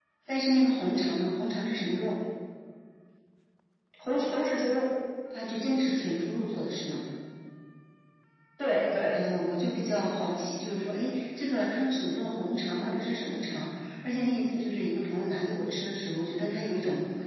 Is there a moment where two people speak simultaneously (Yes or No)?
No